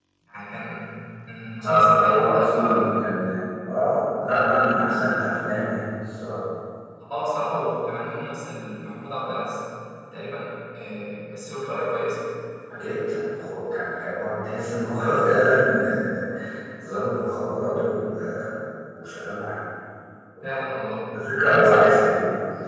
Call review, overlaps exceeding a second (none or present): present